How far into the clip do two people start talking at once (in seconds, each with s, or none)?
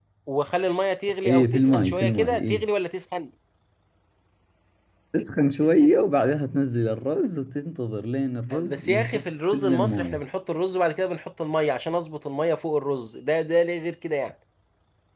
1.2 s